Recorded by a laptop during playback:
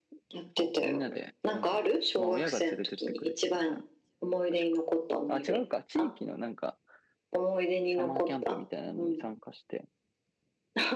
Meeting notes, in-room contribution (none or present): present